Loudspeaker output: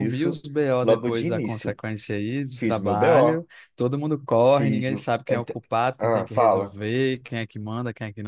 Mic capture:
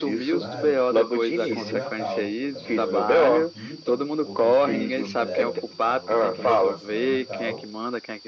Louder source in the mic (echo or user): echo